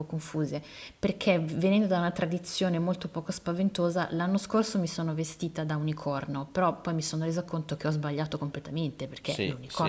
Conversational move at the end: taking over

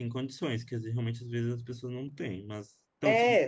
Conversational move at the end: taking over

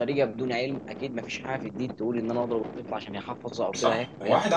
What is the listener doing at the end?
taking over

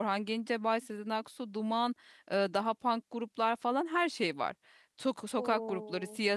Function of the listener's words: listening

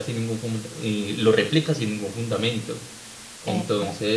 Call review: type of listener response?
listening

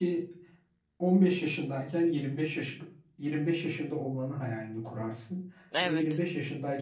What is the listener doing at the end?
listening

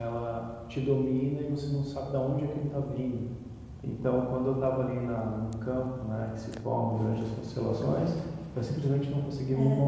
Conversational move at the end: listening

